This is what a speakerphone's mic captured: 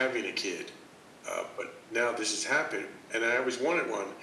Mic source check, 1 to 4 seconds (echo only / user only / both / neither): echo only